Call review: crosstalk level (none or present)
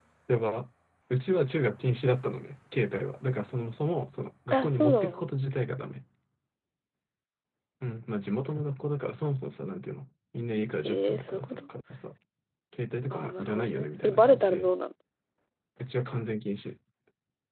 present